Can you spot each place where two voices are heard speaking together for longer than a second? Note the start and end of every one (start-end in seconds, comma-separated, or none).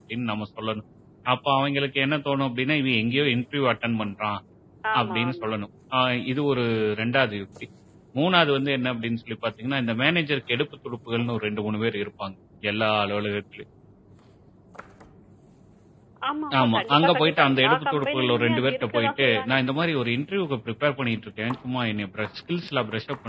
16.6-19.6